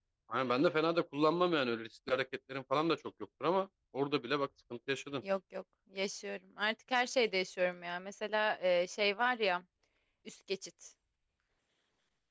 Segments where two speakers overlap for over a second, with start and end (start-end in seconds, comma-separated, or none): none